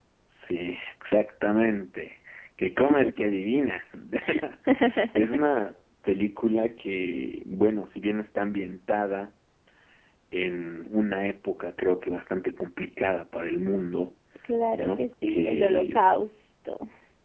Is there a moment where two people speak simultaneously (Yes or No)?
Yes